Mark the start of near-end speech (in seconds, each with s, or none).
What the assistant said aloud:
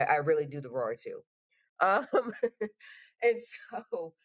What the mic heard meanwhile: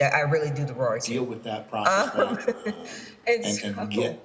1.0 s